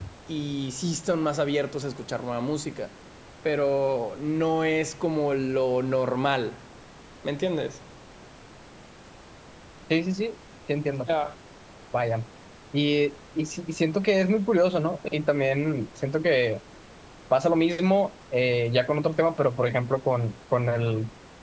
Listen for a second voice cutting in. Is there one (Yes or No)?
No